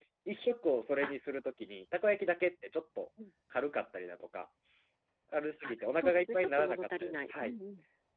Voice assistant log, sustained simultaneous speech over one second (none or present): present